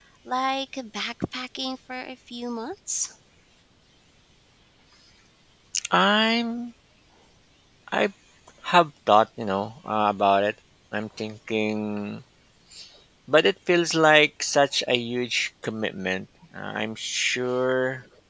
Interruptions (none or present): none